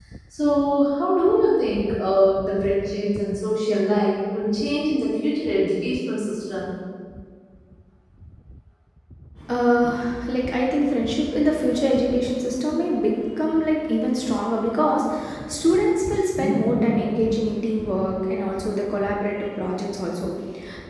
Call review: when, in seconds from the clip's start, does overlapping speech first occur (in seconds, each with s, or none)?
none